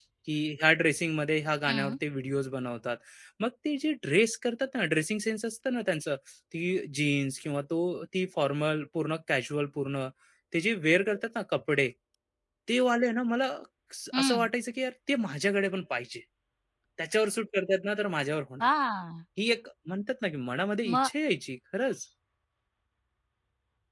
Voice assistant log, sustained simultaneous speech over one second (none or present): none